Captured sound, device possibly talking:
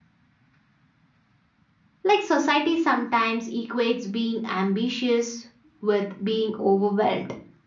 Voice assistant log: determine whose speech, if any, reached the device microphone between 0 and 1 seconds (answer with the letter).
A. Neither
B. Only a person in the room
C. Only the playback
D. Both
A